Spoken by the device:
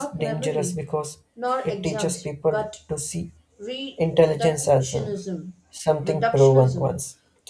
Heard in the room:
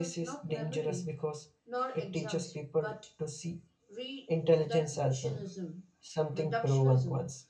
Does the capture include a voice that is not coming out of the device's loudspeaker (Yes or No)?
No